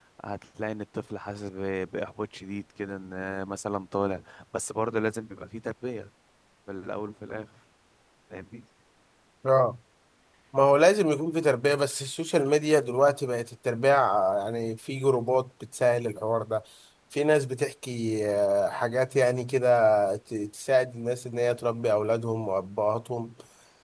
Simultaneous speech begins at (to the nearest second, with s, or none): none